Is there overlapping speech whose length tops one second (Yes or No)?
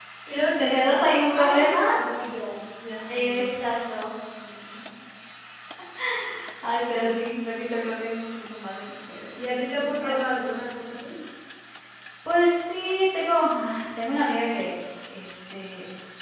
Yes